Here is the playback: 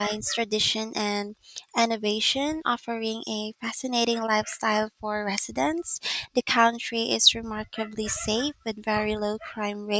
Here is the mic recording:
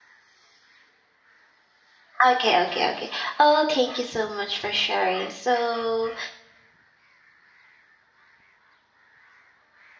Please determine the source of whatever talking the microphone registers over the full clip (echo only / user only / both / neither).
user only